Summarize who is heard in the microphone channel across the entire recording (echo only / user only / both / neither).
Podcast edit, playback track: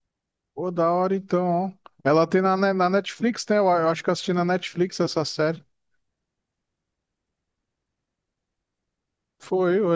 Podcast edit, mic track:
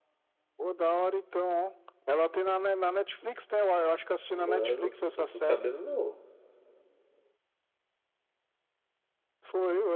both